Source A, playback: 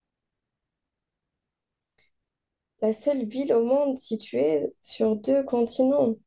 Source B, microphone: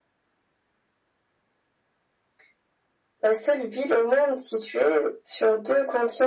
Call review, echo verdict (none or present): present